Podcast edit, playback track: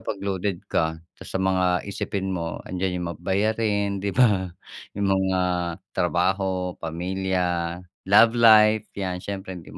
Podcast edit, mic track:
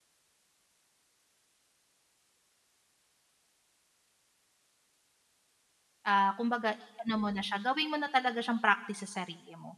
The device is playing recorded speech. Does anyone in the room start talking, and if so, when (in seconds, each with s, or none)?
6.0 s